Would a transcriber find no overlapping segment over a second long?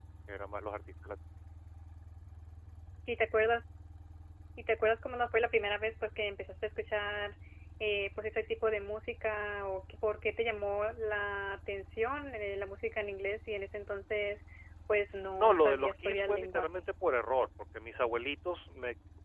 No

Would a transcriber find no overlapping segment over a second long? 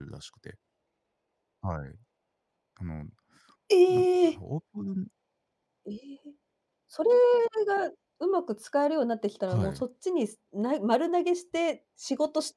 Yes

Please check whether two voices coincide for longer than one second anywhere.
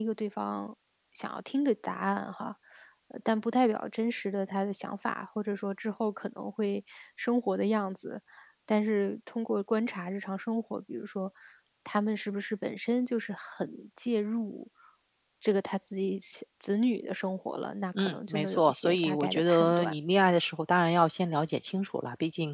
Yes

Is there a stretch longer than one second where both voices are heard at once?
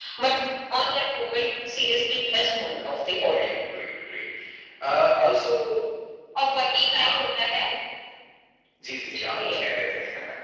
No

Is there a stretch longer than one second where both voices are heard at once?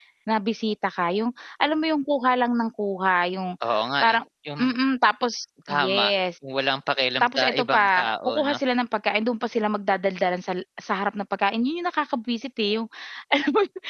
Yes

